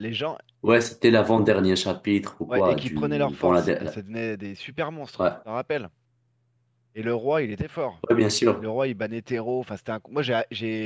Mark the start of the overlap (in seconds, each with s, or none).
2.5 s